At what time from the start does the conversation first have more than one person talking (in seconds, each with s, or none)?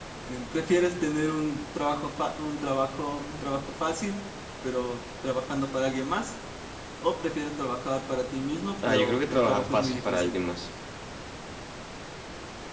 8.8 s